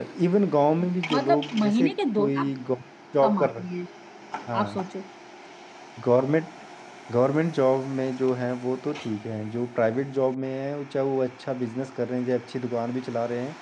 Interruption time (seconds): 1.1 s

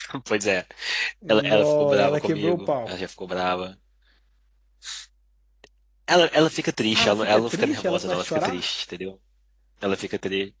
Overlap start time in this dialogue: 1.3 s

